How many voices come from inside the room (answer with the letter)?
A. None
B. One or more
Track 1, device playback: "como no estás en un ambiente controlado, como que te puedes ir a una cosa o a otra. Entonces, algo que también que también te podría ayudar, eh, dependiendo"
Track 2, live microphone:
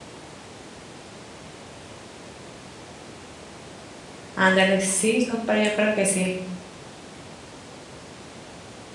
B